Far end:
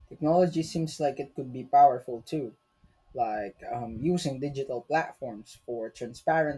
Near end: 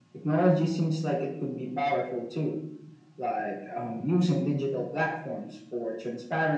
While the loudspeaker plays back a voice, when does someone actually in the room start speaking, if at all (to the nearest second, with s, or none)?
none